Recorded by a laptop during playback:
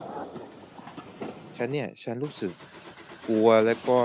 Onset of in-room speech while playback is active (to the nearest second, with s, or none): 2 s